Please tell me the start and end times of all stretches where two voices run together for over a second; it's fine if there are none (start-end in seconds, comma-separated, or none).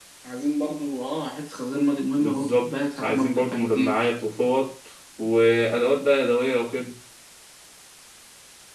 2.2-4.1